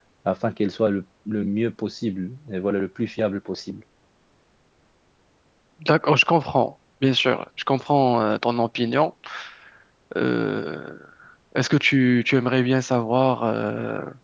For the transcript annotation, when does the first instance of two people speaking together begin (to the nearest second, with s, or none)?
none